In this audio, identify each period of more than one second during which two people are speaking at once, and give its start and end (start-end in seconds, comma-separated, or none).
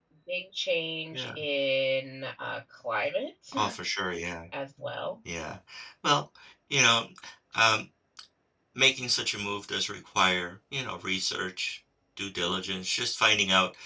none